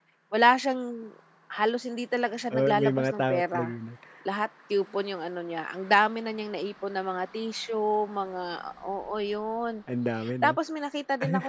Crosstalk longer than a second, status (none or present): present